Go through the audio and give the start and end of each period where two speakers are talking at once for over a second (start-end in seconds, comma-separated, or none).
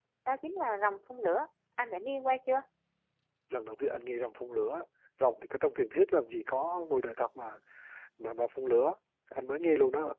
none